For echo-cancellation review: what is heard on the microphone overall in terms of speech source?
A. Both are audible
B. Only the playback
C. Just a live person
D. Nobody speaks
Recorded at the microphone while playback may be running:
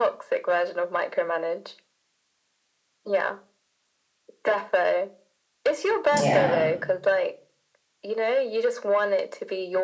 A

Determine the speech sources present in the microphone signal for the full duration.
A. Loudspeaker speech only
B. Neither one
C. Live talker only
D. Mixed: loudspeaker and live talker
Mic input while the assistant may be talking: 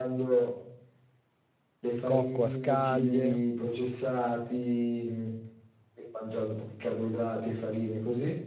D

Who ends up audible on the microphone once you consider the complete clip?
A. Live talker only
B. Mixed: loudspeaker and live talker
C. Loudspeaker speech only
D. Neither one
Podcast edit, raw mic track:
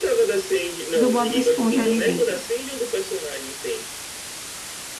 B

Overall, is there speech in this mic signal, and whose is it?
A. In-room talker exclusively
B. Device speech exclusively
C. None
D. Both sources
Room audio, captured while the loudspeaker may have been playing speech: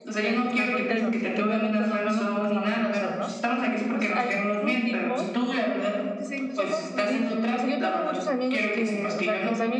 D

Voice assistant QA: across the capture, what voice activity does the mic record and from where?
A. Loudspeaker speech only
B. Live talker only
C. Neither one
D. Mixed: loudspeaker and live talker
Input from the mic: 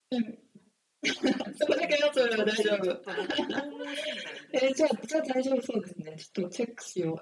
D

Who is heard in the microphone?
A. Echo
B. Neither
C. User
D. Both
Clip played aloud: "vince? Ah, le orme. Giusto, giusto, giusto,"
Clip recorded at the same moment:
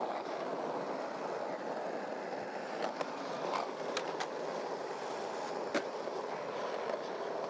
B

